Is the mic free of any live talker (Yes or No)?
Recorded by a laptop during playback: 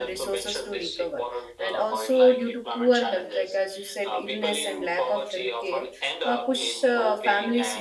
No